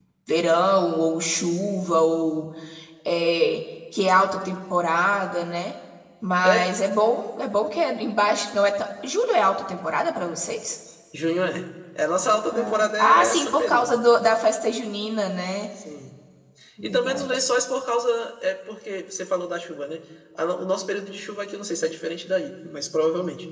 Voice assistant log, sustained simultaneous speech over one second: present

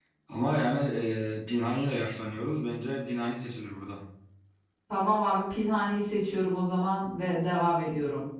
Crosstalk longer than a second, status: none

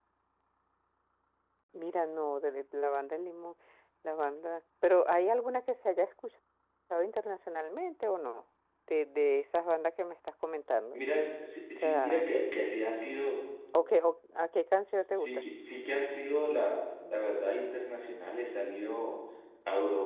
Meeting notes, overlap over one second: none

